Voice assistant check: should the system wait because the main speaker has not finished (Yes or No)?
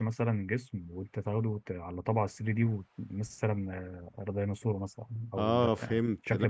No